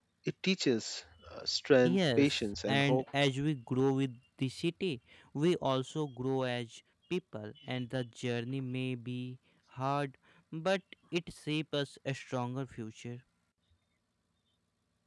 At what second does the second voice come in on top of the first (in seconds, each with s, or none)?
1.8 s